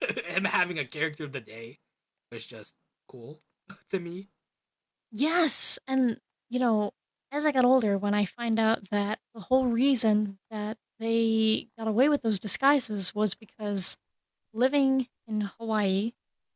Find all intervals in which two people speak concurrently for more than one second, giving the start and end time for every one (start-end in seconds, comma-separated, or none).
none